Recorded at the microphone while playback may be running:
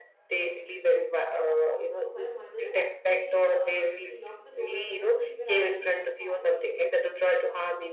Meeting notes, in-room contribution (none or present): present